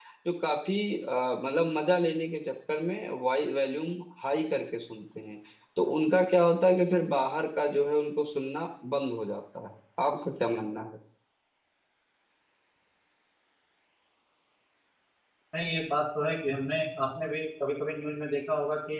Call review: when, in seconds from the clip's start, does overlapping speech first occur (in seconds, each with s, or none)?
none